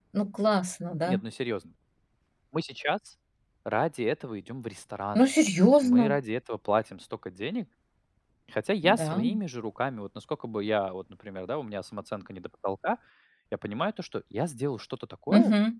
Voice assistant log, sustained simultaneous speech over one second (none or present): none